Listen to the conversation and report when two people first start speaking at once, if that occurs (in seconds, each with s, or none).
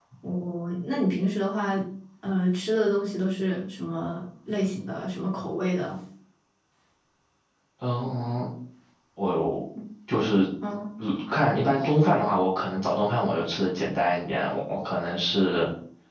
none